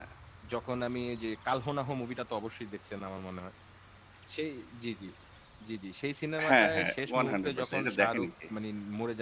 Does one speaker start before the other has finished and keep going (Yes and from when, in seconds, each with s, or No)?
Yes, from 6.5 s